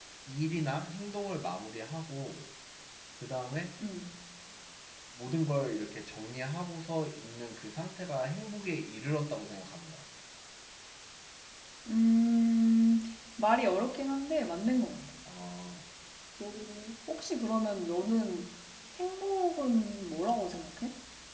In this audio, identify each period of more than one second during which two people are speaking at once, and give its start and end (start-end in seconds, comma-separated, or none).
none